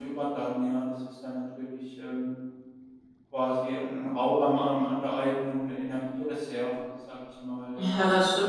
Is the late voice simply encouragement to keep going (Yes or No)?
No